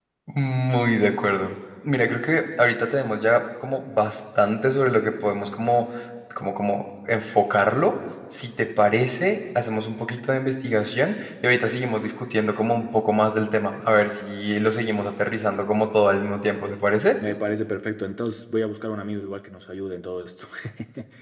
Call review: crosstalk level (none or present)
none